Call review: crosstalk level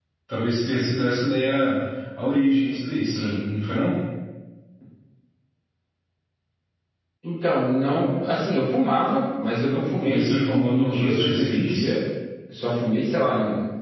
present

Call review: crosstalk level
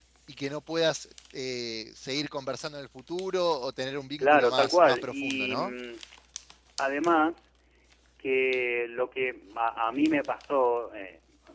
present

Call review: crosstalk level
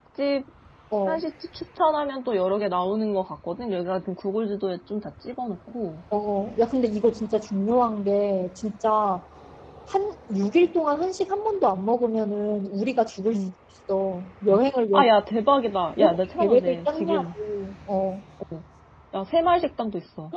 present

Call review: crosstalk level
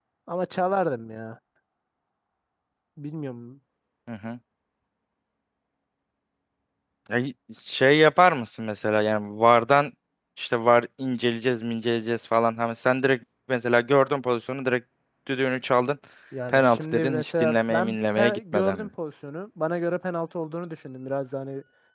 present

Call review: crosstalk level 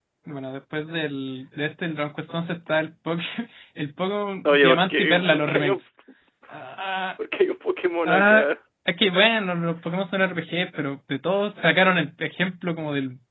present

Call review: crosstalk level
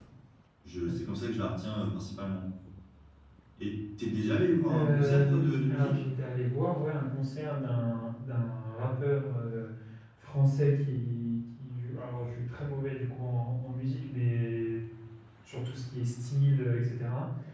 present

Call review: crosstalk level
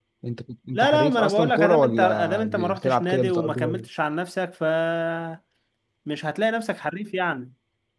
present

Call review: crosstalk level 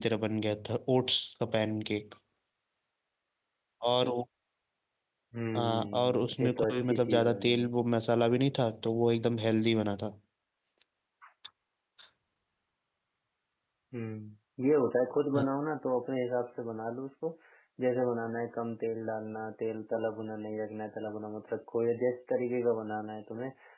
present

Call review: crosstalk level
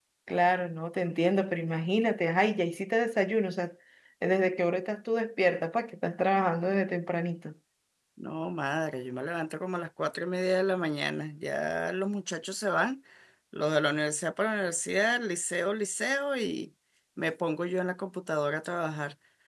none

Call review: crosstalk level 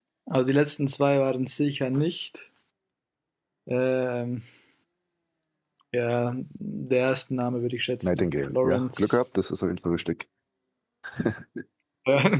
present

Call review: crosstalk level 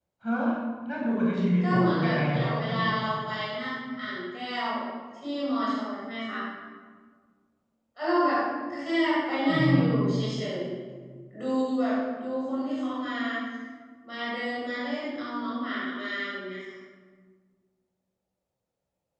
present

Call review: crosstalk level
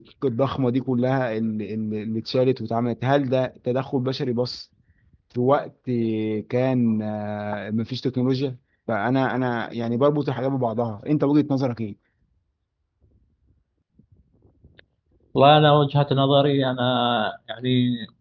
none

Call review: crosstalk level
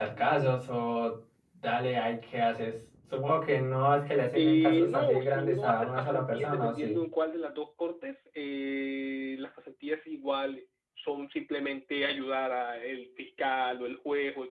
present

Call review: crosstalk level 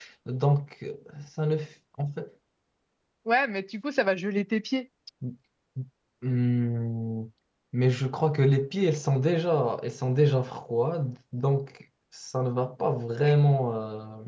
none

